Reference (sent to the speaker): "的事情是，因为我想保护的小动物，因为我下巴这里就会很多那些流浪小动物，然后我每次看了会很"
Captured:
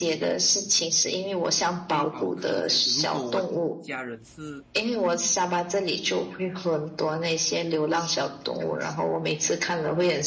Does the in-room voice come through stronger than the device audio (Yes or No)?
No